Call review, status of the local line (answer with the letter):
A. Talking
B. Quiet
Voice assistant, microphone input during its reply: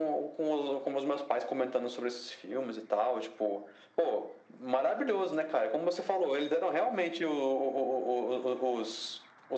B